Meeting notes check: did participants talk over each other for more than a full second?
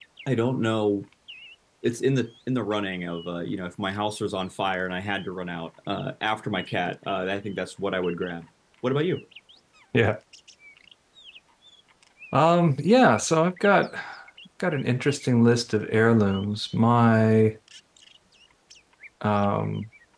No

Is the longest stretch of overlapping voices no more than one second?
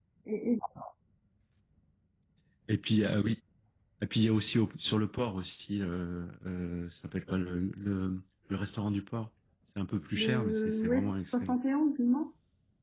No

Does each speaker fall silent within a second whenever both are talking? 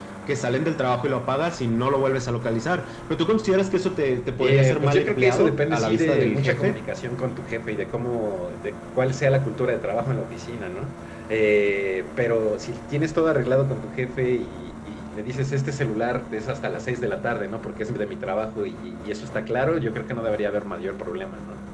No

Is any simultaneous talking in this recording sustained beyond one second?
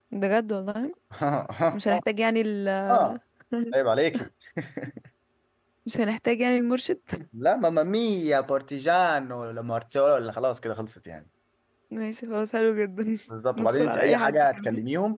Yes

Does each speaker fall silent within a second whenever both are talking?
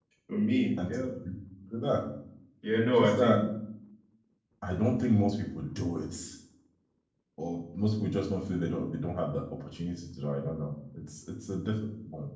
Yes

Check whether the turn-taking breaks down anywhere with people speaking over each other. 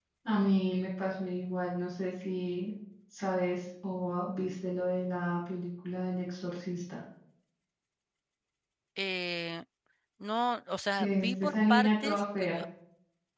Yes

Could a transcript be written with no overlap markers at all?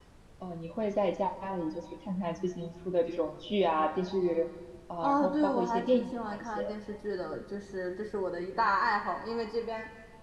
No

